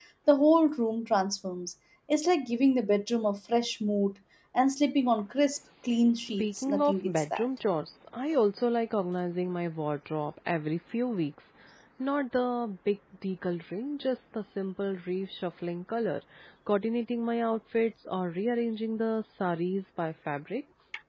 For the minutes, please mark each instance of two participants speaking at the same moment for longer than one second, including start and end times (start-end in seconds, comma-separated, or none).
6.2-7.5